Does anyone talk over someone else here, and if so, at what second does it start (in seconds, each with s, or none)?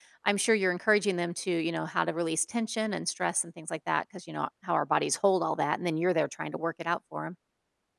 none